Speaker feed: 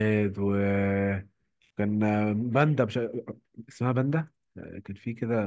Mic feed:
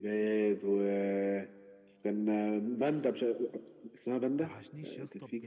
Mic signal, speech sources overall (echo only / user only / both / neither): both